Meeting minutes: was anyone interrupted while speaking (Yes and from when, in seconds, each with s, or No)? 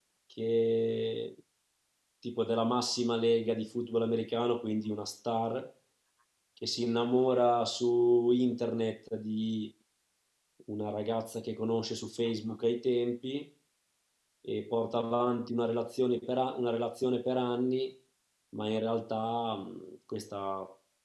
No